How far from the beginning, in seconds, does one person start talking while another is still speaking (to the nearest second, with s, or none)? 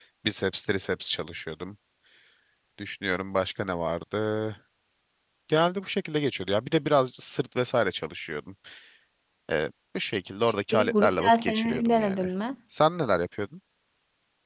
11 s